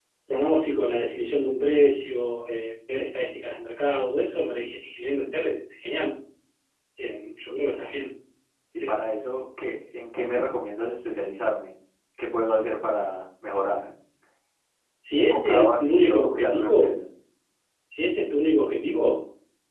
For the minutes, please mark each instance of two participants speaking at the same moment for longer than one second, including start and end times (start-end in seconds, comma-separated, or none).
15.2-17.0